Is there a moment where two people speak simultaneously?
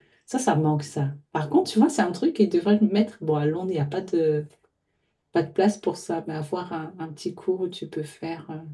No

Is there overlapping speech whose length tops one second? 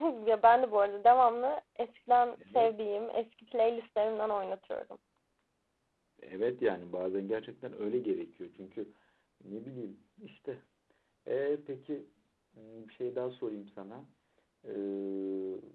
No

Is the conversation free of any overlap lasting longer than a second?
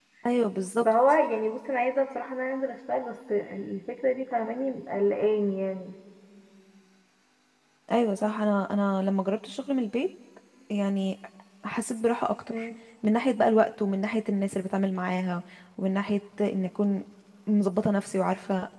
Yes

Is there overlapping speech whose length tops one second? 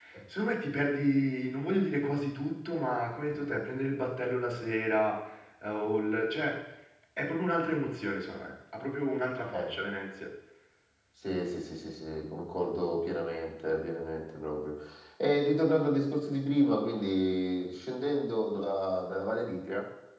No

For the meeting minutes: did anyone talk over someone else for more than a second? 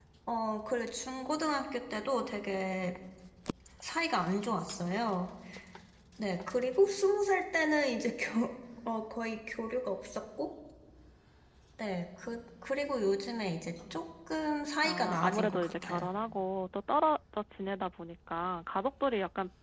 Yes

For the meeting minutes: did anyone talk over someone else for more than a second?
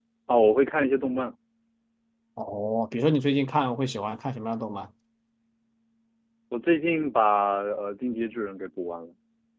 No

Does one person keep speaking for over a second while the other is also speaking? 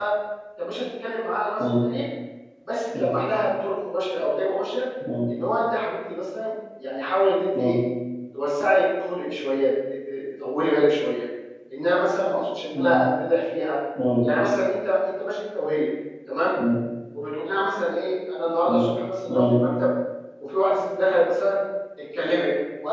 No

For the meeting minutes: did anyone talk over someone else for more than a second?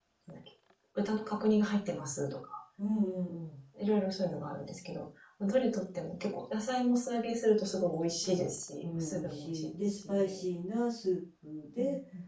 Yes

